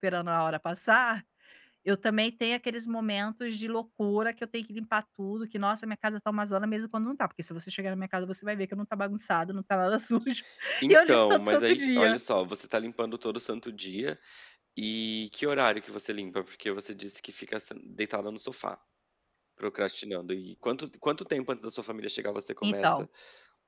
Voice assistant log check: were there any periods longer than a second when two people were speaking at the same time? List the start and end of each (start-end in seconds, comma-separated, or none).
10.9-12.2